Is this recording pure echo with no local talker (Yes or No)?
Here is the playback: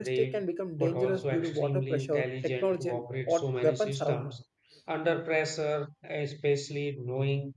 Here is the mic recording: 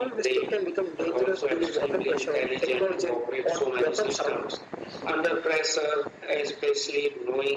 Yes